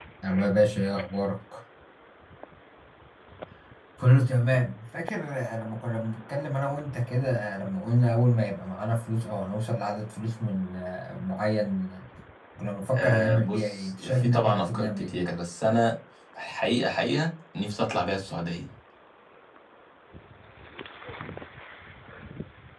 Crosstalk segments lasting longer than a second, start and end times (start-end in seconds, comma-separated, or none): 12.9-15.1